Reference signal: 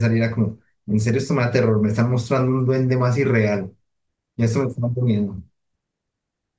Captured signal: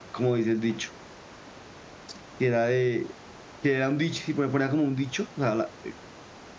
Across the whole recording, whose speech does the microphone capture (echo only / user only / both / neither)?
user only